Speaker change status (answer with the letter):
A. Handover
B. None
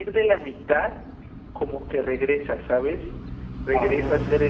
B